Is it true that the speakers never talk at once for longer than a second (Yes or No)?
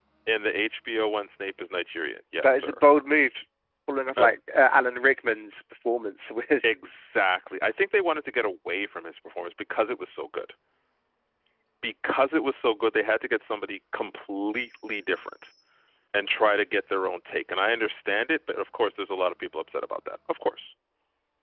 Yes